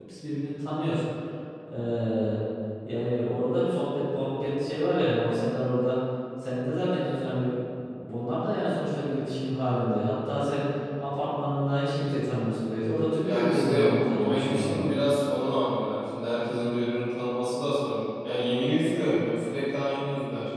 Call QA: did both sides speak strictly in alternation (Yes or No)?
No